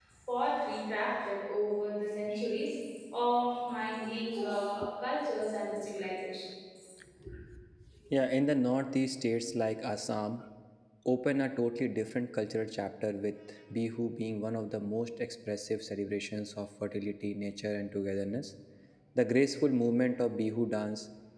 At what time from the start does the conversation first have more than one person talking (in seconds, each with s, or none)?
none